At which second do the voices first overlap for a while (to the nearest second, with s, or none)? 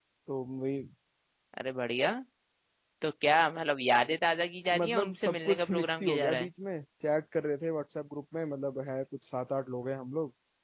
5 s